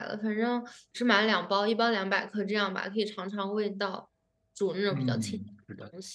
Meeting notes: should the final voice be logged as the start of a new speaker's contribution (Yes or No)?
Yes